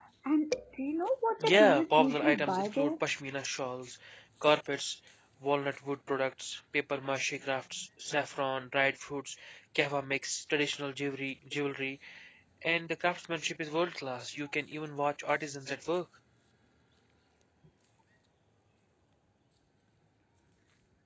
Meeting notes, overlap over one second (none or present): present